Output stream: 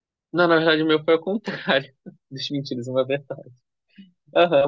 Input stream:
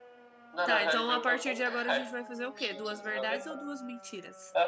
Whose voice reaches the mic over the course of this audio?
both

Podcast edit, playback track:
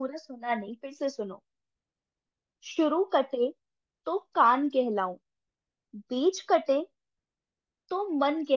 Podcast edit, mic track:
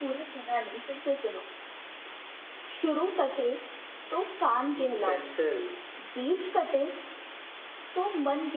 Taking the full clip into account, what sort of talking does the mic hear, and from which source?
both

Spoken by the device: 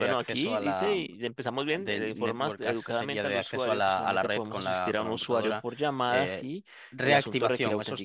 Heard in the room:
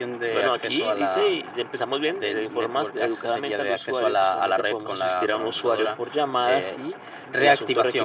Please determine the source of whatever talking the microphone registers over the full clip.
echo only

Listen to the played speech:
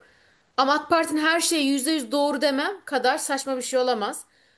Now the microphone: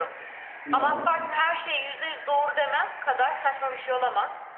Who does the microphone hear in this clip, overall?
both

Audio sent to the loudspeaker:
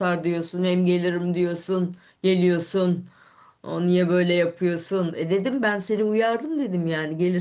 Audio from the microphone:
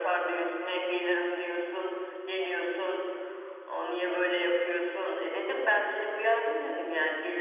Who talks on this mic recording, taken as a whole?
echo only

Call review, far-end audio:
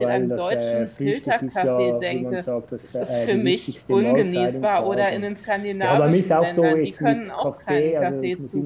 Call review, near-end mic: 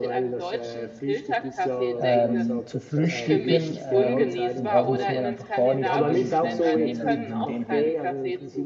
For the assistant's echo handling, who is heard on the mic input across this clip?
both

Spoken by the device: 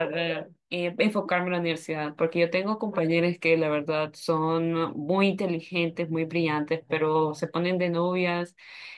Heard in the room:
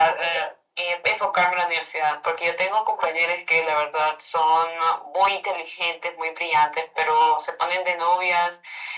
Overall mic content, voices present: echo only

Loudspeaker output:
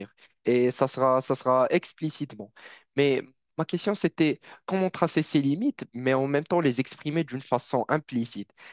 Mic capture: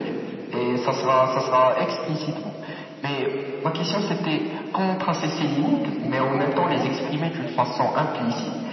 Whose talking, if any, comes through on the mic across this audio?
both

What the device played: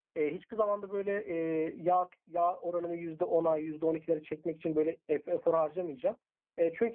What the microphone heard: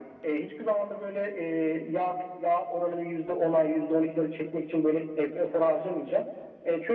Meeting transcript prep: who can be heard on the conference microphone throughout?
echo only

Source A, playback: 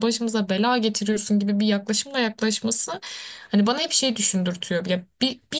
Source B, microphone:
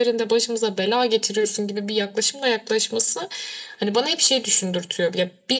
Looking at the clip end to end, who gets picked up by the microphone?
echo only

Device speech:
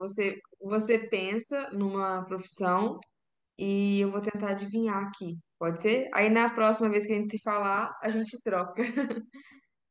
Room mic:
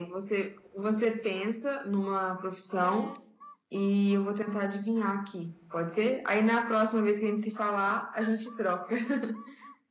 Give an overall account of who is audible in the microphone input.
both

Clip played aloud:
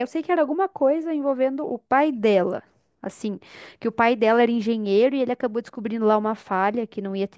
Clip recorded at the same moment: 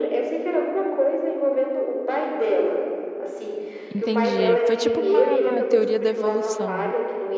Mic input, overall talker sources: both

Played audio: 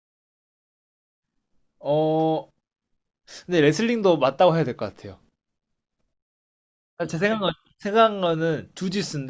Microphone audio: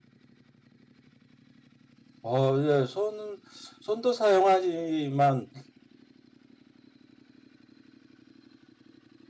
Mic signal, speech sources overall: user only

